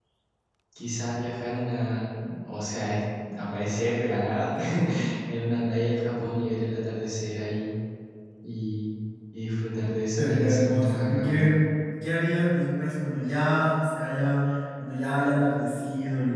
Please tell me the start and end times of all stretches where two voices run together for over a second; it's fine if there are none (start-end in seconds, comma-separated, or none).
10.2-11.5